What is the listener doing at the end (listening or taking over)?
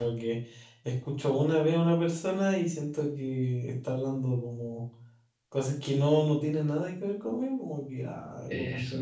listening